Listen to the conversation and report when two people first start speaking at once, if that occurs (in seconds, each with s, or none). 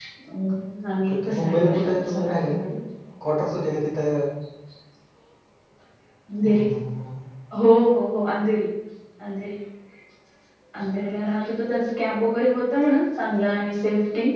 1.3 s